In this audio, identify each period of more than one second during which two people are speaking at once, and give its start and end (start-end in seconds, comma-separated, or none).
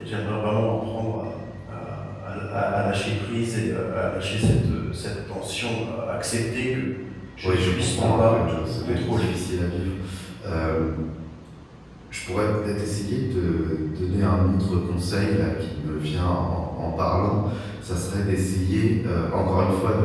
7.4-9.3